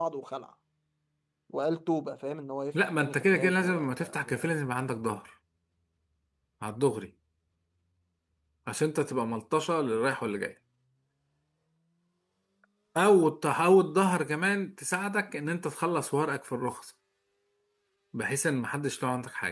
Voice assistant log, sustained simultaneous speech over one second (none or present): present